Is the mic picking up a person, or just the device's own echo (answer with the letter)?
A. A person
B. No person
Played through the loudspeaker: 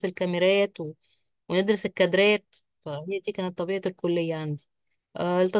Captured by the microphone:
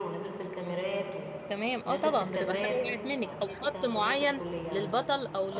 A